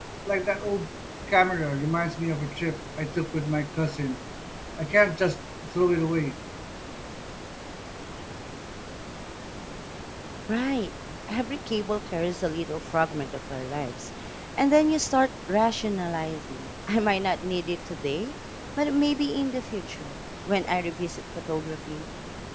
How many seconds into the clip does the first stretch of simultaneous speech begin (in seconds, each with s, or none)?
none